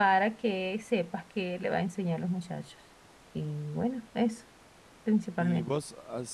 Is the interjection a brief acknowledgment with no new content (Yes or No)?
No